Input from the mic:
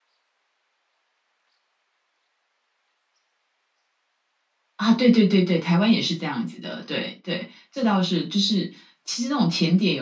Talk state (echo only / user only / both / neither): user only